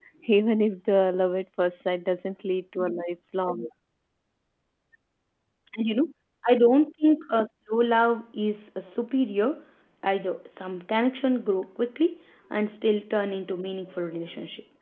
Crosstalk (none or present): none